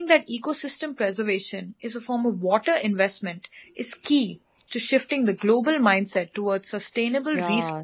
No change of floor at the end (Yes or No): No